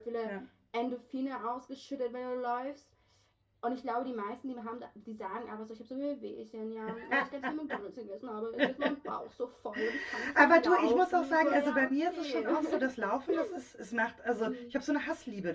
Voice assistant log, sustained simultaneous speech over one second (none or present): present